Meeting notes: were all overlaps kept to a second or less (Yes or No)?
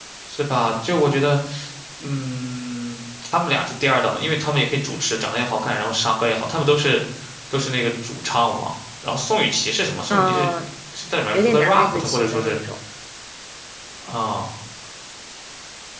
No